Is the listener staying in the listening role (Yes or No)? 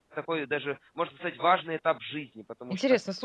No